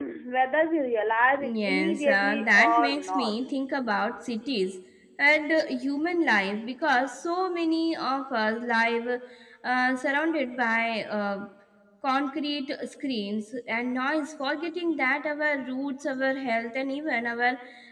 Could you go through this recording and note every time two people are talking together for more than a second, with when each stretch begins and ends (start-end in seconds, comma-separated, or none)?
1.4-3.3